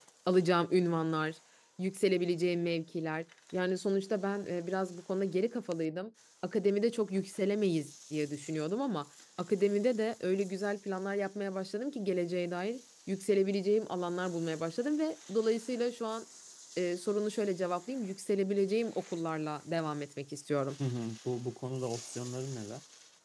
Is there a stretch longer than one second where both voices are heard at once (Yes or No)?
No